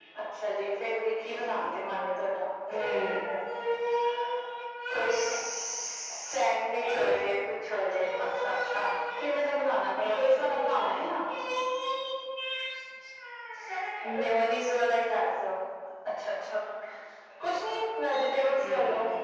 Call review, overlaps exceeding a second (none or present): none